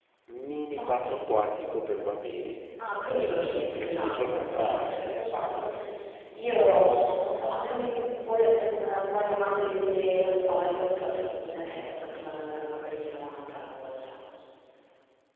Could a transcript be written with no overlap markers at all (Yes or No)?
No